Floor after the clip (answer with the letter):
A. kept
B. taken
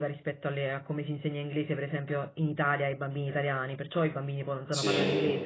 A